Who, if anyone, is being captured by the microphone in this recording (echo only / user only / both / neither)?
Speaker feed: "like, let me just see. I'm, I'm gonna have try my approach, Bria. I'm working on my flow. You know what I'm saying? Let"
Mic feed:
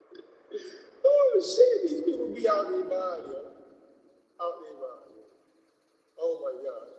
user only